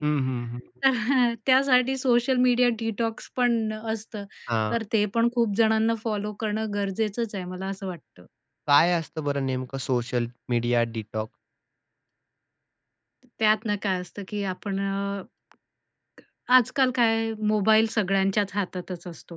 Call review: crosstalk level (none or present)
none